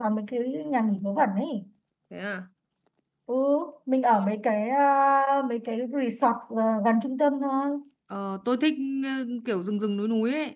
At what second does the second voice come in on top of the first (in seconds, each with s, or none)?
none